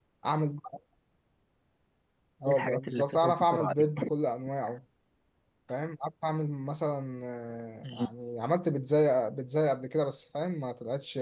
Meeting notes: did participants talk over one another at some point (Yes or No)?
Yes